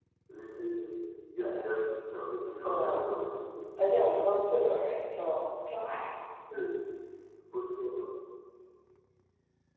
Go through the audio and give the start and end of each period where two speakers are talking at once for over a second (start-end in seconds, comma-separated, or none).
none